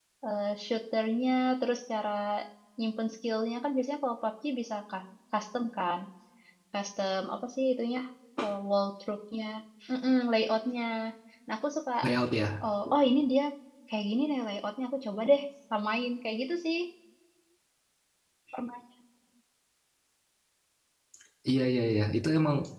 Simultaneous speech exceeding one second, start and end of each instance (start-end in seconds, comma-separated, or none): none